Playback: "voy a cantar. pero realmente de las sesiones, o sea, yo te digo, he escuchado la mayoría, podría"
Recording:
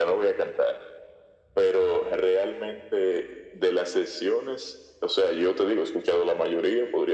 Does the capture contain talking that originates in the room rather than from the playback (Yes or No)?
No